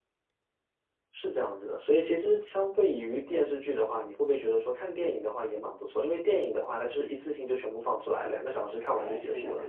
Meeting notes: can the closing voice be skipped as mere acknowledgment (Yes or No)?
No